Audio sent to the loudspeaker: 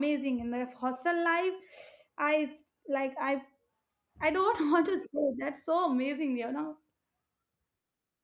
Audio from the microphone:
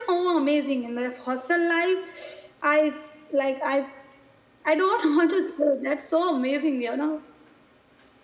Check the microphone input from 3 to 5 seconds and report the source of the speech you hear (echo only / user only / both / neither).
echo only